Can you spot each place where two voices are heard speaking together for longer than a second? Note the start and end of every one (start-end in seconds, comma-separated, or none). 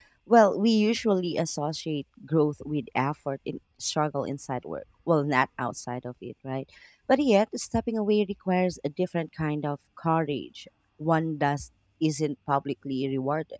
none